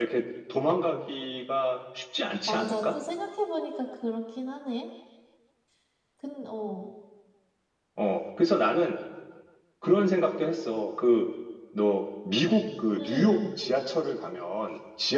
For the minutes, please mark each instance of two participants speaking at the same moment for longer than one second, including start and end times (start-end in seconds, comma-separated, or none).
none